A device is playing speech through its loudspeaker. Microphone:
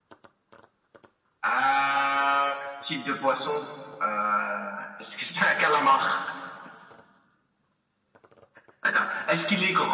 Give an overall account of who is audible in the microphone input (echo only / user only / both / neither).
echo only